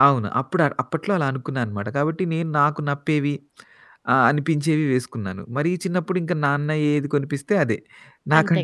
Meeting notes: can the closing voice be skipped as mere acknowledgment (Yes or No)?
Yes